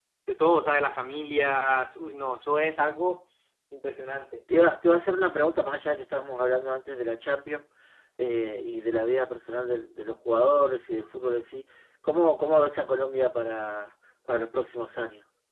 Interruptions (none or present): none